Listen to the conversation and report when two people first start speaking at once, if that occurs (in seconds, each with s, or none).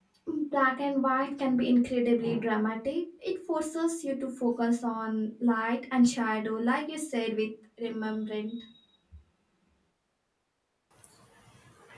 none